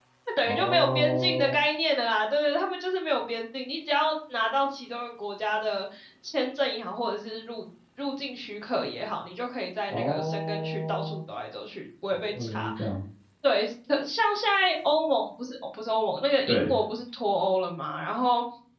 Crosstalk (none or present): present